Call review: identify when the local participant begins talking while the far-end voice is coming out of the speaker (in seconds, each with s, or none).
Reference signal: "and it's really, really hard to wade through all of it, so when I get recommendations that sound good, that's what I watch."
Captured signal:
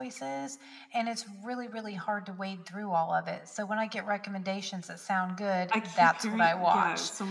5.7 s